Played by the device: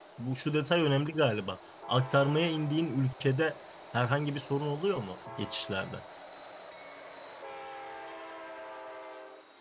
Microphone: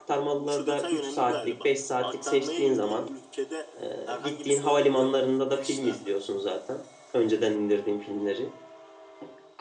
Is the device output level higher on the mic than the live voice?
No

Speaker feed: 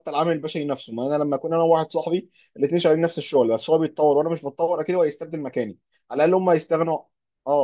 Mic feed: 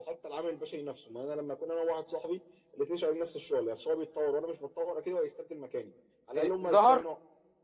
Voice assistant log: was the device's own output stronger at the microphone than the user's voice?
No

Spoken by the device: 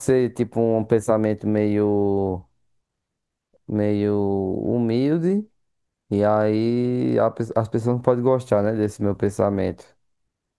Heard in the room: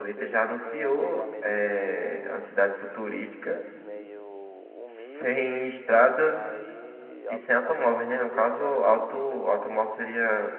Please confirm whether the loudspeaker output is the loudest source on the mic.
No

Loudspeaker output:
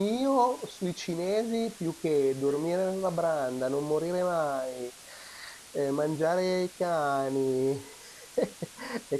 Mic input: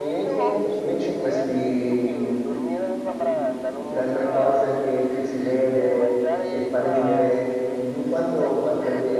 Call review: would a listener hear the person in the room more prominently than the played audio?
Yes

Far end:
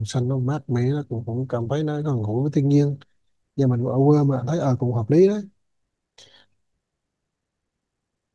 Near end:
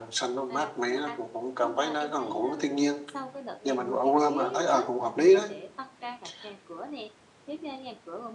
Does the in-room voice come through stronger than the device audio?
No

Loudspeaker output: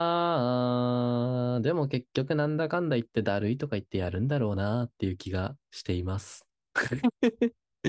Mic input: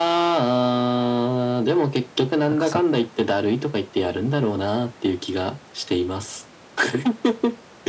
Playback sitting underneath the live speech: No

